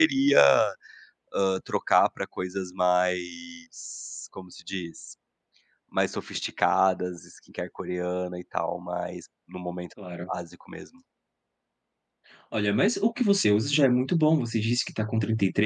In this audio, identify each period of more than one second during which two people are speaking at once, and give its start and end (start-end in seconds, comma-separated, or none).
none